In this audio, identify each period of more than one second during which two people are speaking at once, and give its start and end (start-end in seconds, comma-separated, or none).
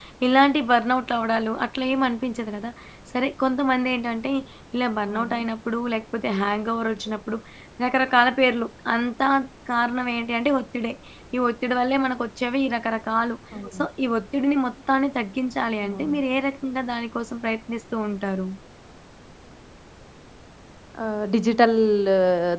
none